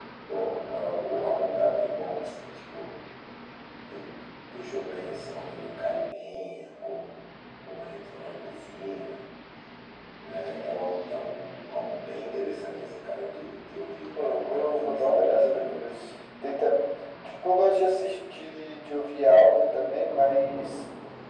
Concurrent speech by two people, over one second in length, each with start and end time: 14.2-15.9

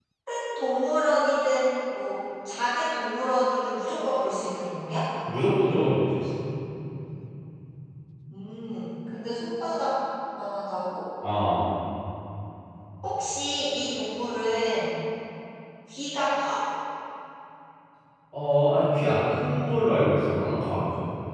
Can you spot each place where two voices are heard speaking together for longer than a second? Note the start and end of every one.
none

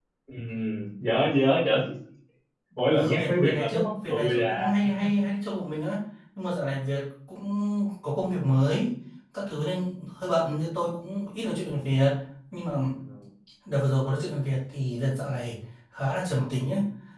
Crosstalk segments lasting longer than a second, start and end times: 2.9-4.8

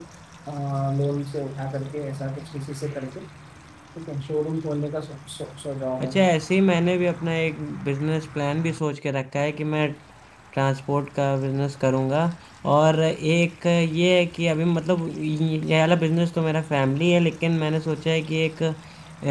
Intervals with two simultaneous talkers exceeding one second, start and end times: none

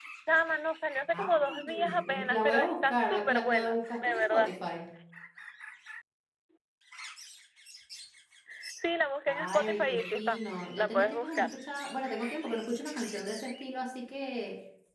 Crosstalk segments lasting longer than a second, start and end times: 1.1-4.5, 9.3-11.5

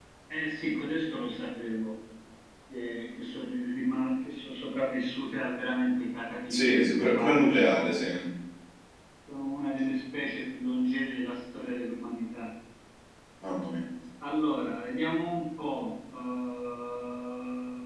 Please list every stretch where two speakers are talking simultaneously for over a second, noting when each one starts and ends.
6.5-8.0

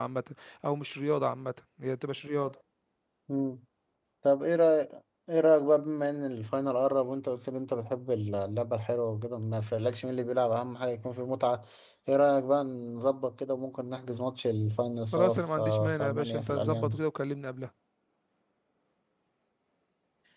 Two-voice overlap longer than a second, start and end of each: 15.1-17.0

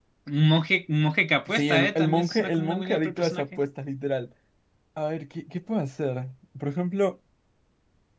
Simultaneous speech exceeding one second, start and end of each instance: 1.5-3.5

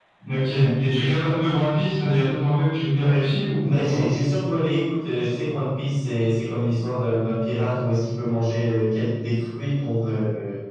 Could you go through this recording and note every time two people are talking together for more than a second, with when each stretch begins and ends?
none

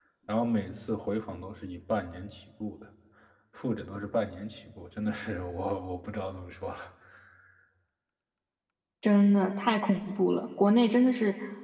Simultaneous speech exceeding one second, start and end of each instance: none

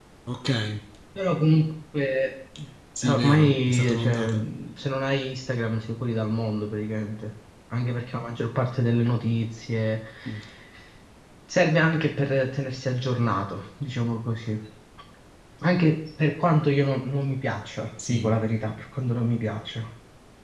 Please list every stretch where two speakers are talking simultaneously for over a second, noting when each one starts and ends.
3.1-4.3

